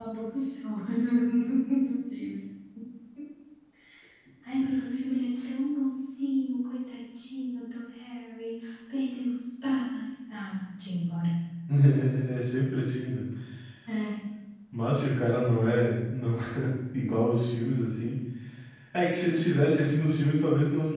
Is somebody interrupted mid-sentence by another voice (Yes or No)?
No